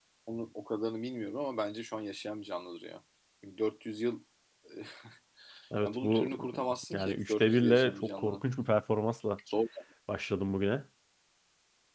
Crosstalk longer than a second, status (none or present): present